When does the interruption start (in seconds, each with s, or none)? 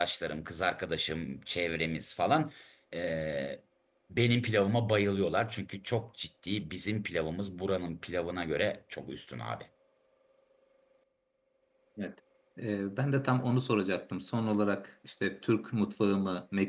none